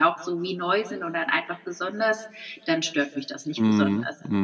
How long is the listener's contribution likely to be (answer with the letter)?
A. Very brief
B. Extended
B